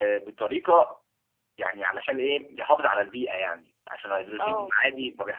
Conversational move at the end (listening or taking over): listening